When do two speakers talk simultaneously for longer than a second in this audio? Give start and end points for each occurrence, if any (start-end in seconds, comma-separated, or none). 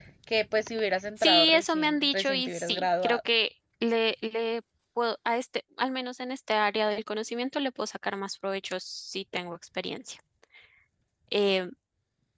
1.2-3.2